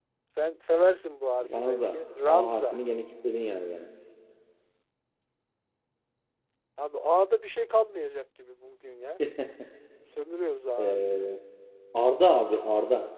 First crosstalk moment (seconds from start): 1.6 s

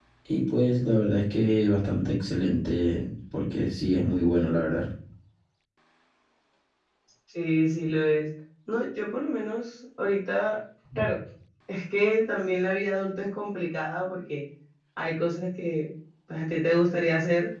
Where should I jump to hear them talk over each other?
none

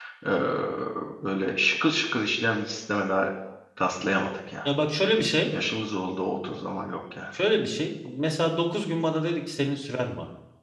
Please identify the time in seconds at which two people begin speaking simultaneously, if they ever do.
none

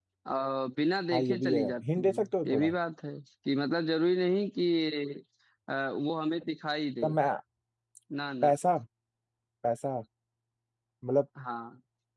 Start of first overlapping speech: 1.1 s

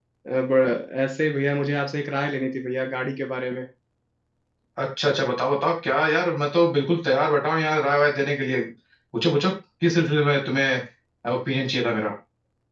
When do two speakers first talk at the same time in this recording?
none

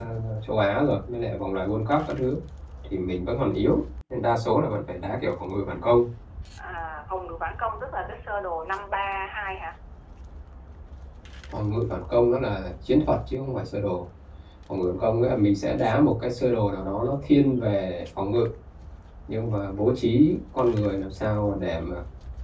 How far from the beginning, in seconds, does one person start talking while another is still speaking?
none

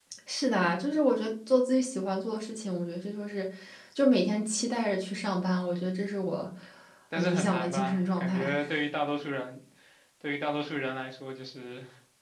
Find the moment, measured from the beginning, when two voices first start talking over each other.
7.2 s

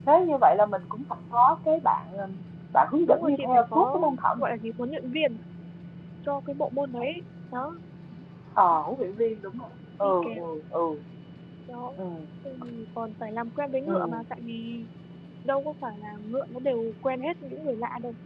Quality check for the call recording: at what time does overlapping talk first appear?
3.1 s

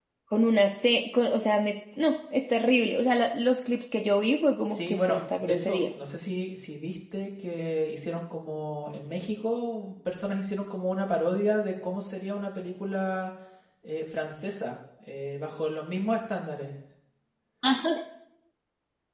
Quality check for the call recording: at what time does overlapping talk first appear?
4.7 s

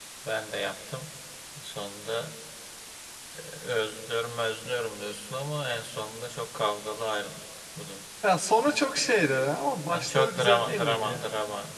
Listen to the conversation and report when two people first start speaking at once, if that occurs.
9.9 s

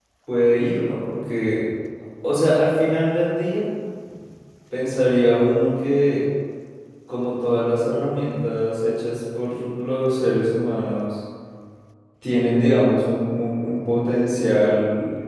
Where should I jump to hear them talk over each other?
none

